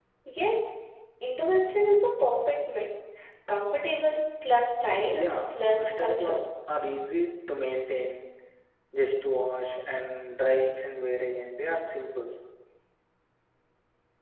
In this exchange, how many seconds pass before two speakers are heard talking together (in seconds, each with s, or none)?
5.1 s